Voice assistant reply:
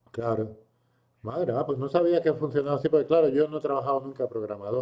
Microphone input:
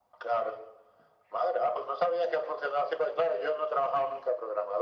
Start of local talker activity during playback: none

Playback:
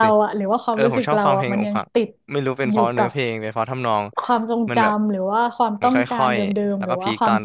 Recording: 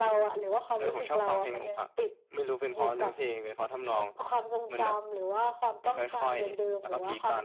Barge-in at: none

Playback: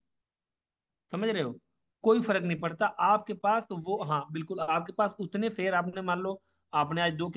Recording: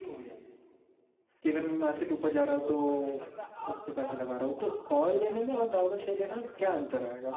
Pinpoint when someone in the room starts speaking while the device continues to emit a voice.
1 s

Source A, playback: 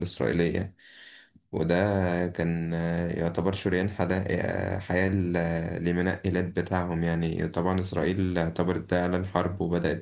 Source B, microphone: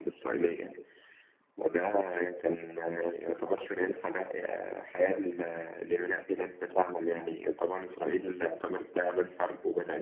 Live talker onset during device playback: none

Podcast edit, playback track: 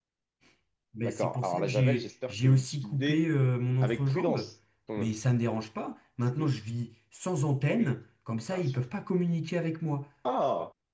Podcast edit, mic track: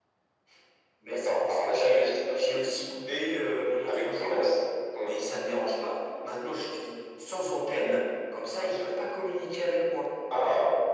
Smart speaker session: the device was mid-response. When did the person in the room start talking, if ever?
none

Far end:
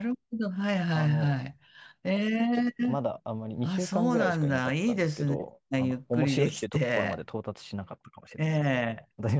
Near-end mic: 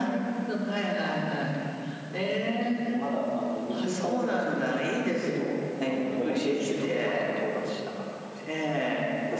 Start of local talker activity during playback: 6 s

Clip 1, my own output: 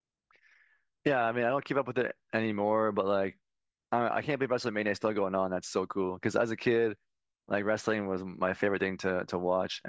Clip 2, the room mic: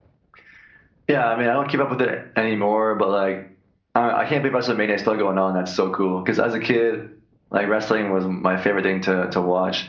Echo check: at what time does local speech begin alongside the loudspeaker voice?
none

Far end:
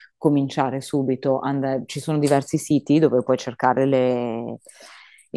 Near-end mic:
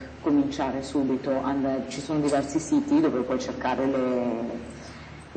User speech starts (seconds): none

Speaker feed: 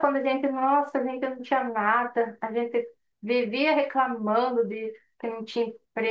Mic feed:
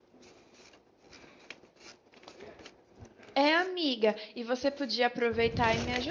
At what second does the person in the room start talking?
3 s

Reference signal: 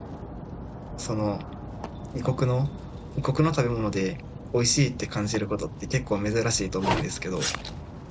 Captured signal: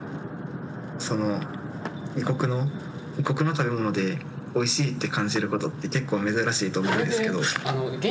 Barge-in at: 7 s

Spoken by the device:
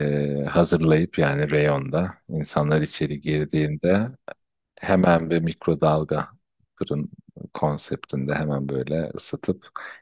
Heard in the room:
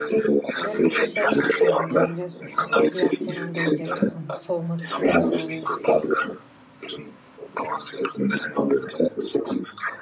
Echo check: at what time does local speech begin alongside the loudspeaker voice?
1 s

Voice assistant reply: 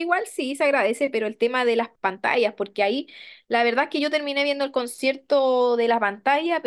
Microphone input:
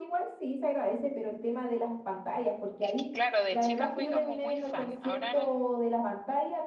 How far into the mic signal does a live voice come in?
3 s

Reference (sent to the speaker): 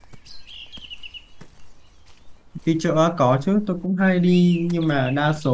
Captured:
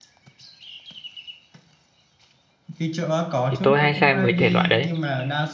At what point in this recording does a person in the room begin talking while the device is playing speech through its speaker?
3 s

